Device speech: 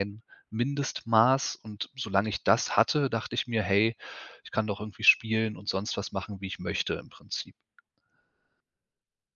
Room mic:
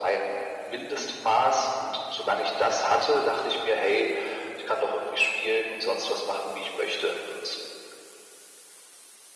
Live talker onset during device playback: none

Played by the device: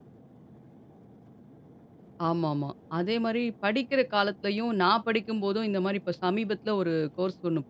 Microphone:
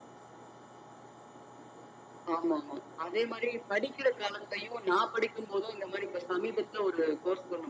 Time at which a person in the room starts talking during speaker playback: none

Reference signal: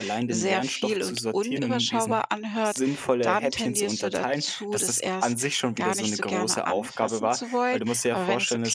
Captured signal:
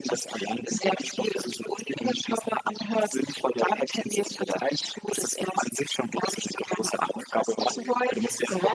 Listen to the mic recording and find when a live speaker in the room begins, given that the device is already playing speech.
7.6 s

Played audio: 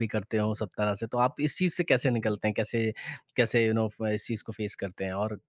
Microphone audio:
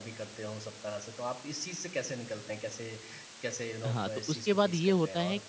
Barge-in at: 3.9 s

